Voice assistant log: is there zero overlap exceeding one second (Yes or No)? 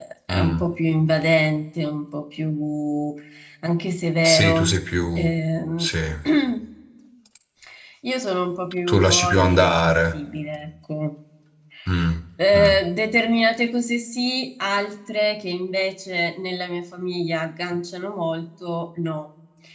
No